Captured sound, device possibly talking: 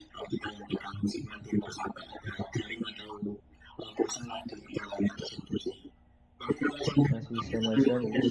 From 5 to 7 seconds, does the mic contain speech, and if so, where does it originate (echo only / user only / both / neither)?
echo only